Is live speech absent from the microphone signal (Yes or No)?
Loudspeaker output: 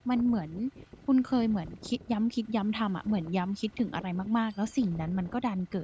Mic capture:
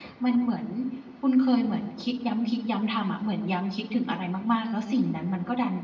Yes